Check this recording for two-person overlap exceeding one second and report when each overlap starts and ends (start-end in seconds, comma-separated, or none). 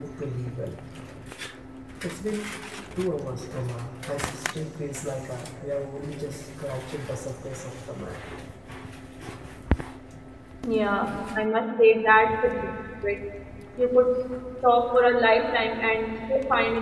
none